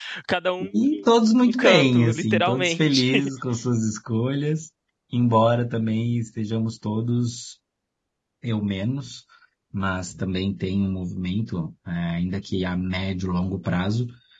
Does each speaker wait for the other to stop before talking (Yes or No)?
No